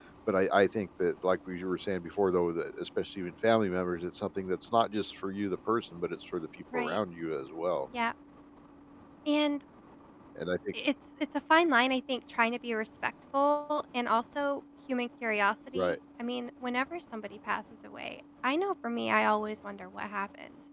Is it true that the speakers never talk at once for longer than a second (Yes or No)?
Yes